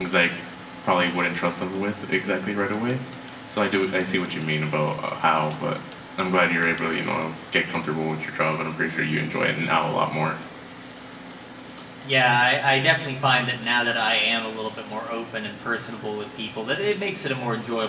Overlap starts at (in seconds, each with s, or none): none